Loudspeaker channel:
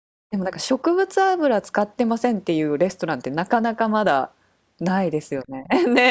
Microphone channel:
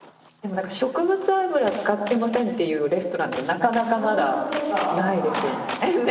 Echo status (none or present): present